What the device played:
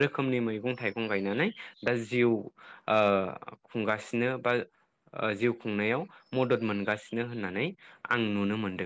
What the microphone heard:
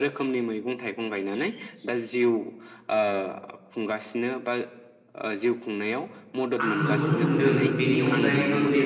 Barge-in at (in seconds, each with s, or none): 6.6 s